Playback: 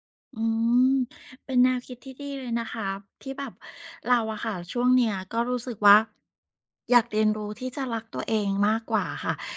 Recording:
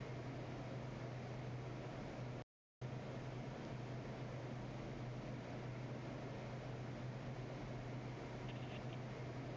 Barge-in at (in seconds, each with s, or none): none